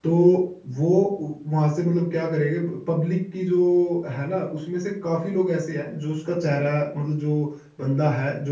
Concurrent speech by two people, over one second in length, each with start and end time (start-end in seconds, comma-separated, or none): none